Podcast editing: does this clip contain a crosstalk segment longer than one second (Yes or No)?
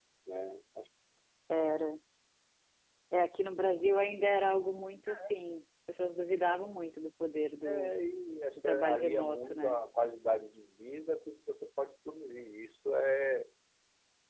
Yes